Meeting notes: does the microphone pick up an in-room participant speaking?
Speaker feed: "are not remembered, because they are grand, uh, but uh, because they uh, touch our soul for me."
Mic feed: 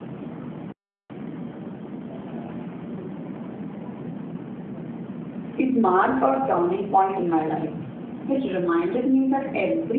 Yes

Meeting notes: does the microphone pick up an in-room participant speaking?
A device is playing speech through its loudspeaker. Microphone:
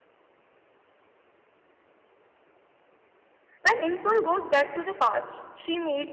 Yes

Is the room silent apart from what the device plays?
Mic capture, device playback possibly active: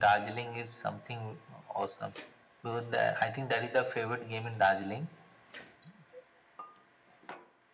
Yes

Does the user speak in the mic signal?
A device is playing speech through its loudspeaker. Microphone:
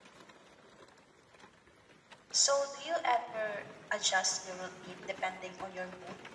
Yes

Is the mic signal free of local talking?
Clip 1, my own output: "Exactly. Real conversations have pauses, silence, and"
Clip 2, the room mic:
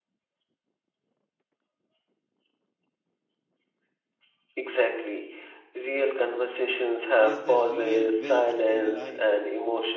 No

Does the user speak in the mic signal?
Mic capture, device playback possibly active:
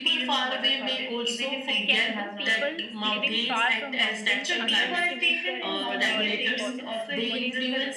Yes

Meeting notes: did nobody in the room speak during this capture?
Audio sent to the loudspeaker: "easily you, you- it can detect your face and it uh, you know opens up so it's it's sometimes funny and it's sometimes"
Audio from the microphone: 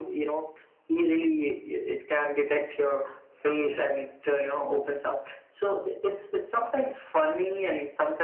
Yes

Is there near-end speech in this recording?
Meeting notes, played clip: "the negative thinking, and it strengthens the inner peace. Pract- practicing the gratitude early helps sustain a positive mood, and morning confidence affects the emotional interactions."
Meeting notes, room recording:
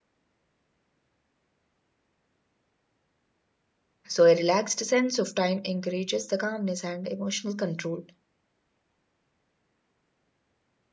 Yes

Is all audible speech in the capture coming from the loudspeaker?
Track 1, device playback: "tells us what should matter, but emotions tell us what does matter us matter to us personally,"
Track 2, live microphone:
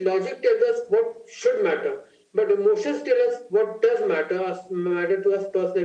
Yes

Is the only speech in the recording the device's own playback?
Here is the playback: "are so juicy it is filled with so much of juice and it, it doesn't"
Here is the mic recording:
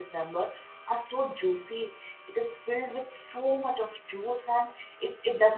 Yes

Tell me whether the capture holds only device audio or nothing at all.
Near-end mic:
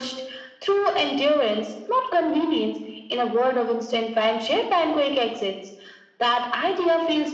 Yes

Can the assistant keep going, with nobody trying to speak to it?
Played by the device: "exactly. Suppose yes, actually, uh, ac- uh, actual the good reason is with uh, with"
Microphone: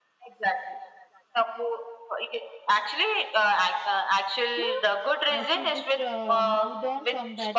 No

